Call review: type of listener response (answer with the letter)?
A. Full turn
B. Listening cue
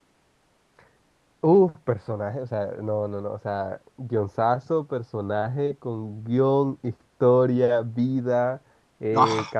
B